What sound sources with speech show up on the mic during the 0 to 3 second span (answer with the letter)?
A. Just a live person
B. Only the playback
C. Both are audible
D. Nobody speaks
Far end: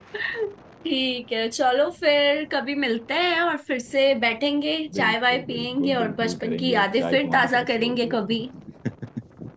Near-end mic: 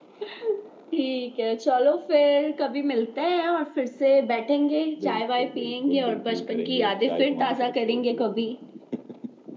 B